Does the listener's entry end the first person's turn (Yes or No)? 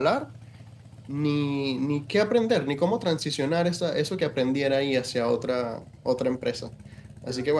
No